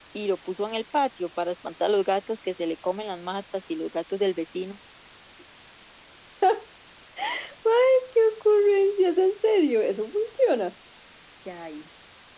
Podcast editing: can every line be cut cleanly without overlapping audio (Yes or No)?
Yes